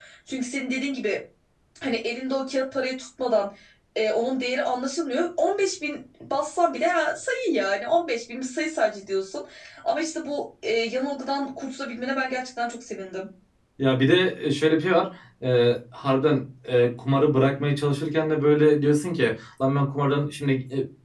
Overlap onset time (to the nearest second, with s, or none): none